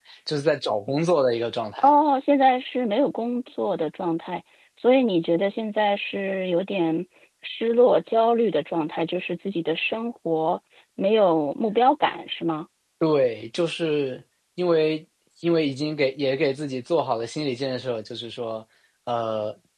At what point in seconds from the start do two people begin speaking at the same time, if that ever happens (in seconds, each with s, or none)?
none